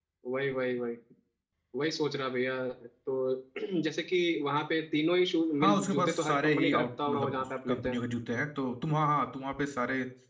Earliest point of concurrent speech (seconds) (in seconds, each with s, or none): 5.6 s